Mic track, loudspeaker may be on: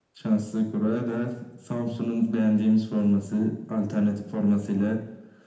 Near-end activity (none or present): none